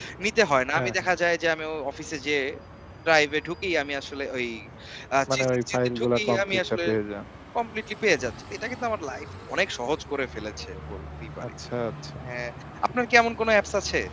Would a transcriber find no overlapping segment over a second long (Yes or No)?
No